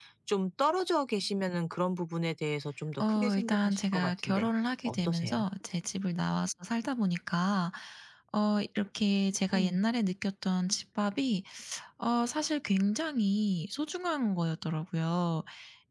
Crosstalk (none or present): present